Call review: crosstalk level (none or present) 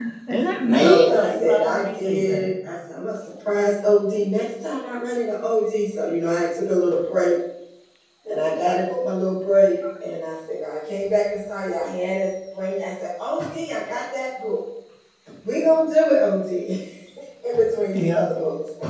present